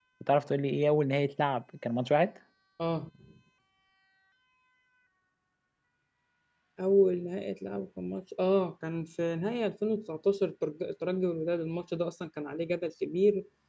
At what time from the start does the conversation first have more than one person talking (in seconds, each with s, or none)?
none